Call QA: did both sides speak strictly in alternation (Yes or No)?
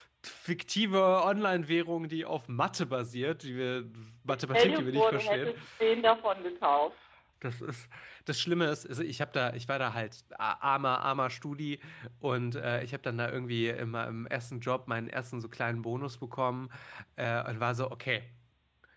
No